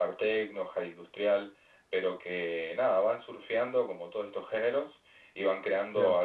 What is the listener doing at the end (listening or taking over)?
listening